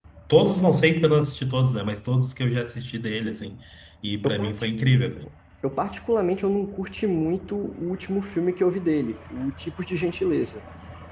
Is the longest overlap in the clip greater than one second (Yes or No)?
No